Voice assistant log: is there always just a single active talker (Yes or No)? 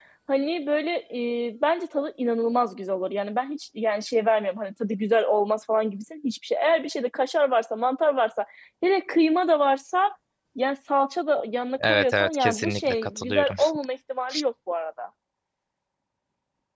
No